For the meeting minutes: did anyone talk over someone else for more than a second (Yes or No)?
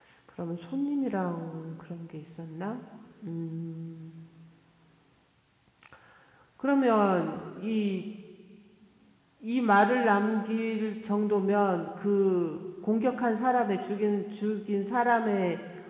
No